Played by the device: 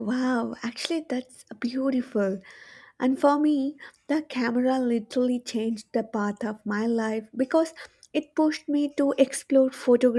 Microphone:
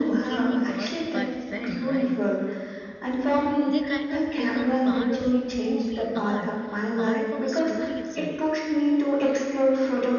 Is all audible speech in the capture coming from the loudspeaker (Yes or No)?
No